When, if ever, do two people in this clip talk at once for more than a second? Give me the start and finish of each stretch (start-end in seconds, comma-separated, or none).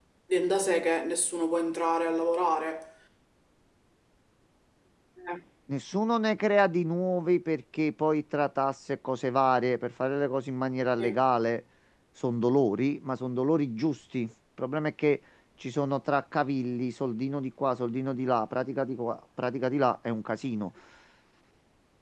none